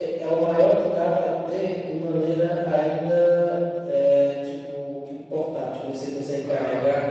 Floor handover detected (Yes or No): No